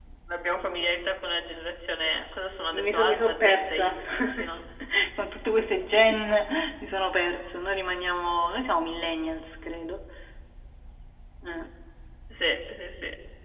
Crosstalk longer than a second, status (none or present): present